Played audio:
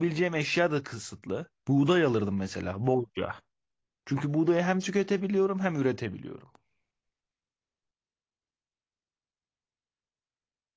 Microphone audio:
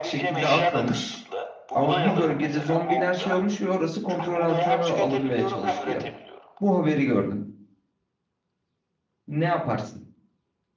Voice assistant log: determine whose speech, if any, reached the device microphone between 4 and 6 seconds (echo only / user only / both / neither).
both